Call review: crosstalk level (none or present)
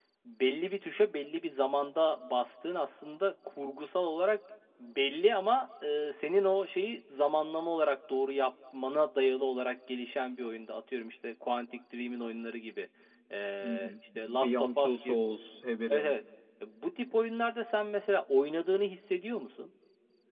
present